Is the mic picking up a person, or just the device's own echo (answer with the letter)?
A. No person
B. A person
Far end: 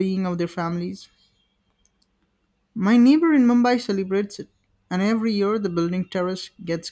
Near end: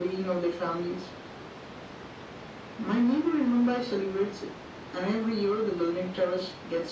A